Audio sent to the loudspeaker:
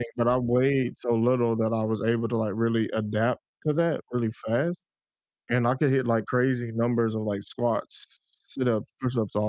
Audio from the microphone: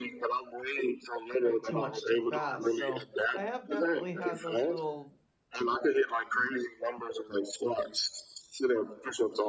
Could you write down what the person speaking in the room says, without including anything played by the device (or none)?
like, too much too fast so, I have definitely had those little